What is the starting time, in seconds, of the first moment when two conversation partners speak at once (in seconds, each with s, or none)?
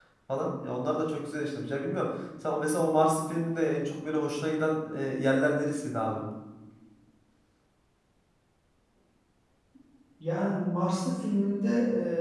none